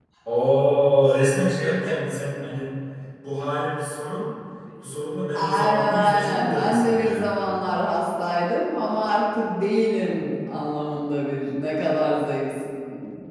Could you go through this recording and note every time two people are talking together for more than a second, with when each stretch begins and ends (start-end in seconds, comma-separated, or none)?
5.3-7.3